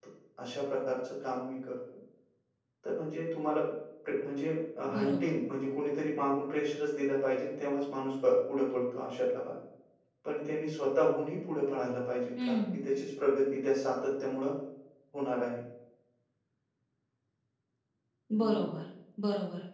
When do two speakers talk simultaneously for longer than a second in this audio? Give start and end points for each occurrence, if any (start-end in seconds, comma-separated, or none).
none